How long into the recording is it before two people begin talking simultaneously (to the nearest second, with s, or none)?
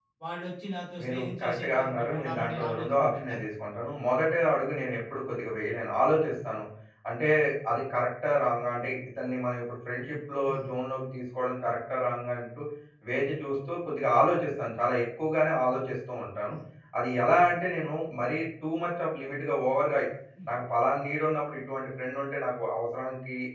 1 s